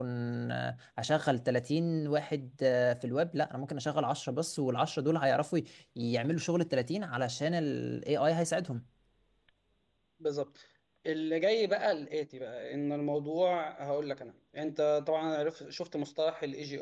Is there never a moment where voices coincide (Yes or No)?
Yes